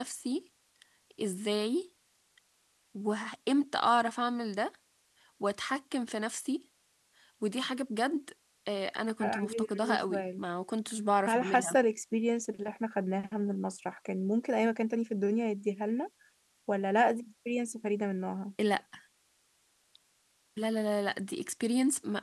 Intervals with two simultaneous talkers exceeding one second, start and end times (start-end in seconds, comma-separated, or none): 9.2-10.4